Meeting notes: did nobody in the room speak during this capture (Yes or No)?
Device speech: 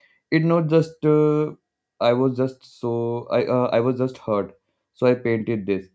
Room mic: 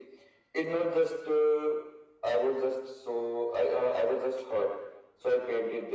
Yes